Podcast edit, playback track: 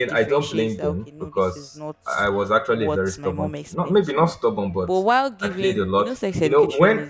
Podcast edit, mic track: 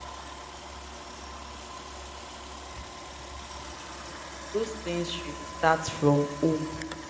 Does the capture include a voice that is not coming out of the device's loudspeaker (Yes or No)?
Yes